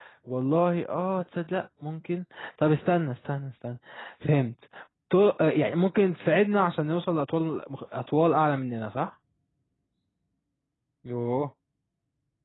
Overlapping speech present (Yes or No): No